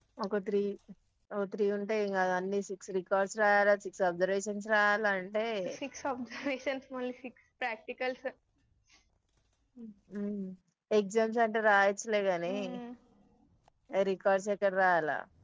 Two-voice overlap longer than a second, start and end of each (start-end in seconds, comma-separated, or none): none